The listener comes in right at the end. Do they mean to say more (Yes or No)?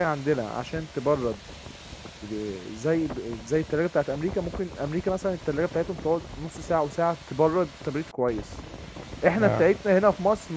No